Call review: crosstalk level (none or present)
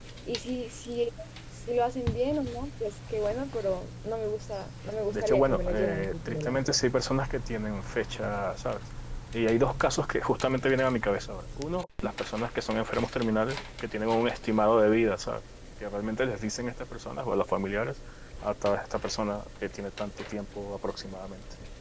present